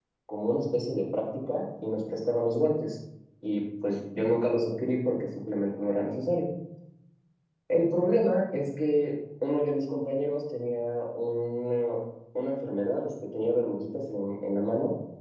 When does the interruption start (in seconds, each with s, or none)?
none